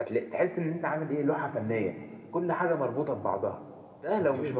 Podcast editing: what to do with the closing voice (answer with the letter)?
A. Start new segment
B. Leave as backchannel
B